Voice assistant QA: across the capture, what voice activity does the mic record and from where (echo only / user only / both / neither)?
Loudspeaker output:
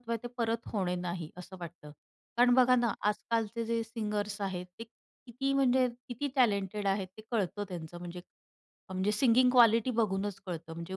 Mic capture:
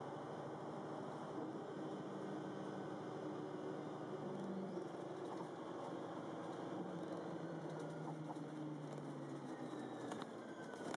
neither